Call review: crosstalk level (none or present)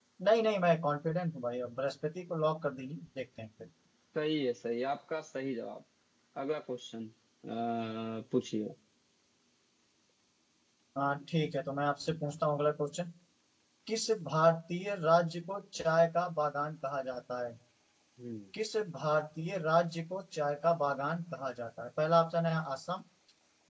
none